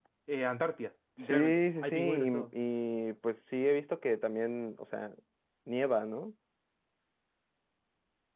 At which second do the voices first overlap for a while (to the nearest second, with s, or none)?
1 s